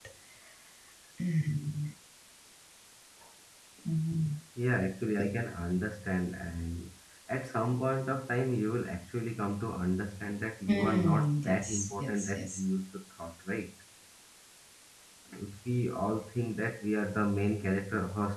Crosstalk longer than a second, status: present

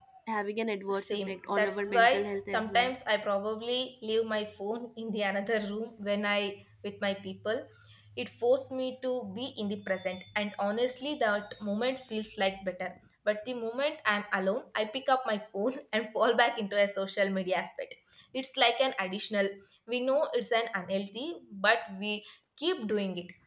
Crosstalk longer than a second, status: present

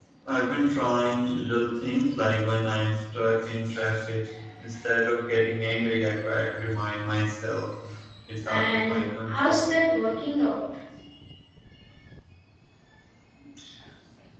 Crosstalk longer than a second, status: present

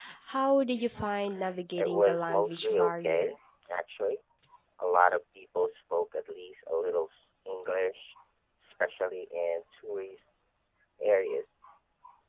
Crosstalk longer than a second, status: present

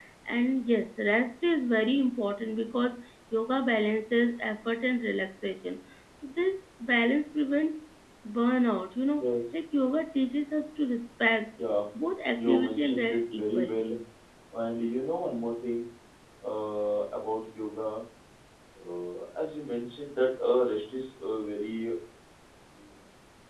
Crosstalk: present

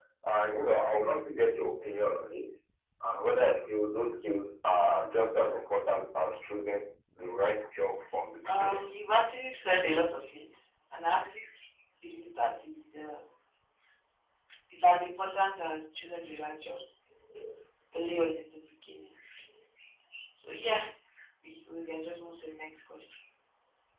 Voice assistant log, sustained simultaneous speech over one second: none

